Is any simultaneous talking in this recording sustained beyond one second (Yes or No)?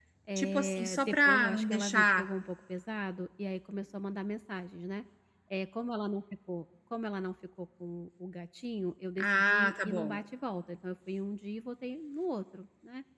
Yes